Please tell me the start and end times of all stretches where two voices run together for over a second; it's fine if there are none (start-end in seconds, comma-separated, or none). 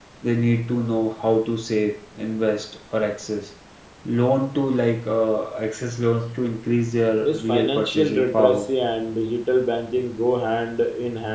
7.2-8.7